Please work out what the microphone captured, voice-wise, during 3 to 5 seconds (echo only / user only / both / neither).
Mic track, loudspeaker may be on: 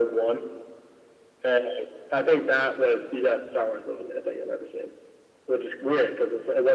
echo only